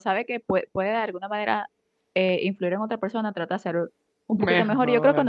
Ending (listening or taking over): listening